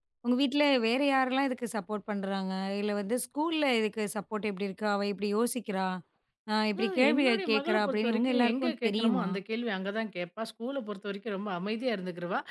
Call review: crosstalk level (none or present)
present